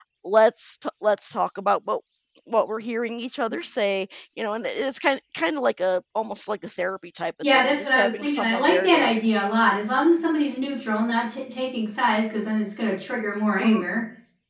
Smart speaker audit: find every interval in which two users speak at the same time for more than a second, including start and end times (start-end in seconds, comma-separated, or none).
7.5-9.1